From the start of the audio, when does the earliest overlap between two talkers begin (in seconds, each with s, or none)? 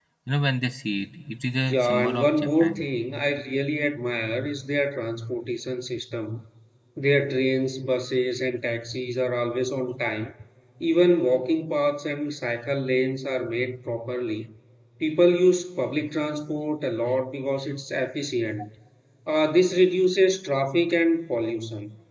1.7 s